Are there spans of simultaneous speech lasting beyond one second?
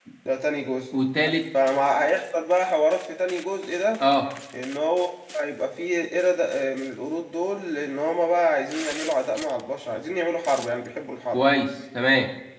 No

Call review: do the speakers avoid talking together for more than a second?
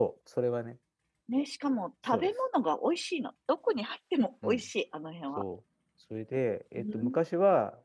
Yes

